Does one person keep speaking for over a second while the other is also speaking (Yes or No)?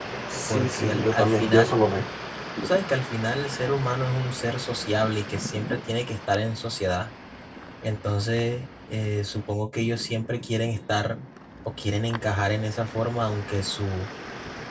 Yes